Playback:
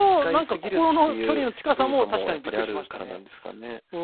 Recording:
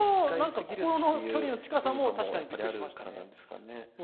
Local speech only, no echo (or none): none